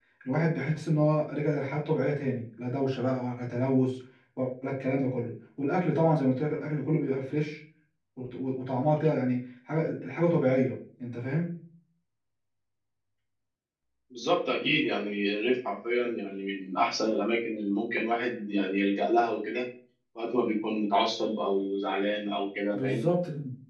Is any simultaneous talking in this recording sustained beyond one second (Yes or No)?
No